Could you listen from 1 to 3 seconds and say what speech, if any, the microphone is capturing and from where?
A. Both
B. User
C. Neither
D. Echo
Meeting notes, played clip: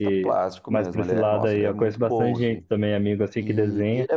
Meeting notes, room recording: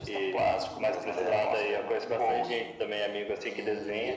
A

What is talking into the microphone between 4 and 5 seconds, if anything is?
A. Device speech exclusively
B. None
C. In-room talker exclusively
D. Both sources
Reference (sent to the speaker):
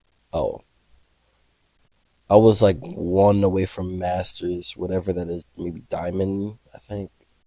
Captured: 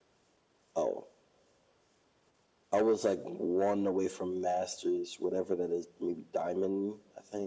A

